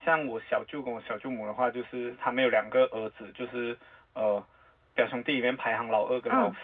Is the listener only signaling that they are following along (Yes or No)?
Yes